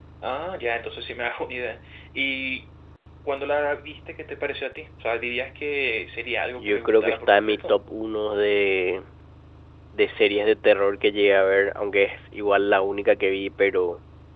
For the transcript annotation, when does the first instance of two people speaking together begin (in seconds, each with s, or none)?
6.6 s